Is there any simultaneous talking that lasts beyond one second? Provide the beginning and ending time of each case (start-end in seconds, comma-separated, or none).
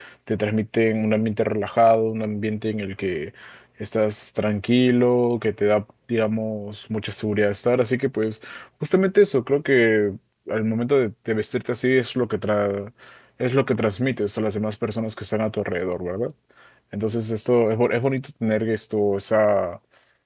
none